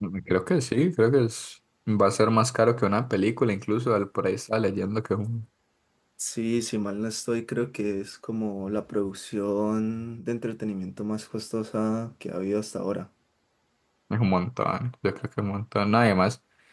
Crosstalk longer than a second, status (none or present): none